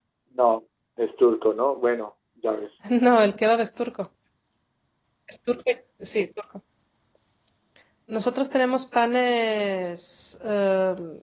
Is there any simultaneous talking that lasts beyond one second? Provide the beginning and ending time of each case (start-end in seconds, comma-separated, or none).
none